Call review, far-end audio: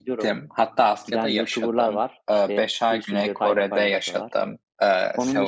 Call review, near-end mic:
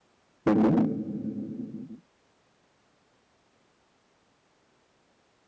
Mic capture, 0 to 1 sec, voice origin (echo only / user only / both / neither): user only